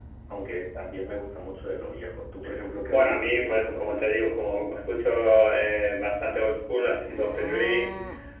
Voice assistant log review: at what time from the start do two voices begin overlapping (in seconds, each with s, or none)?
2.8 s